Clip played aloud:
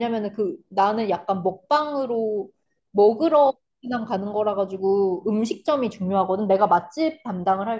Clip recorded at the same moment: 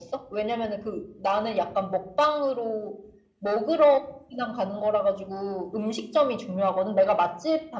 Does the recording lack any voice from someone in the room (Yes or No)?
Yes